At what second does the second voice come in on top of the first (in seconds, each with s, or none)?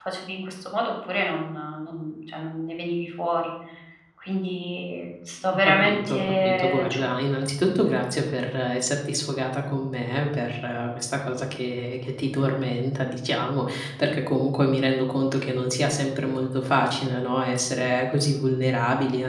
5.5 s